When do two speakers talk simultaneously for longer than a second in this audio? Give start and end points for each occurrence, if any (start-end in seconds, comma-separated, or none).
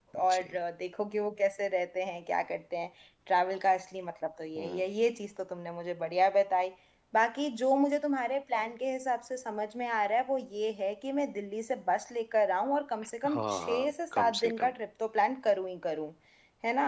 13.3-14.7